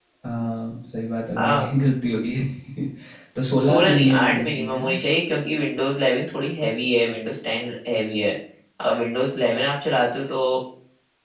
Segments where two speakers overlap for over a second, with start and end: 3.6-5.0

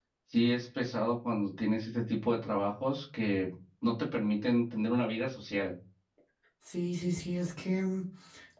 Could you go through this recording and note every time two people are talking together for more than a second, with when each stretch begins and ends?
none

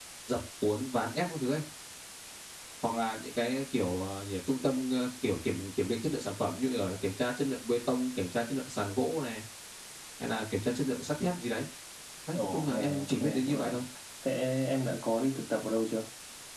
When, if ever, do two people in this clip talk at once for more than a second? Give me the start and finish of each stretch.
12.3-13.8

